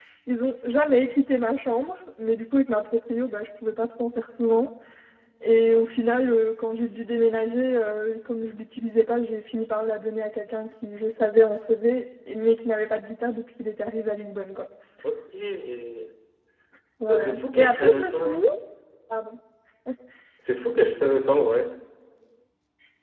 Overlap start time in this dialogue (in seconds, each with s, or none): 17.1 s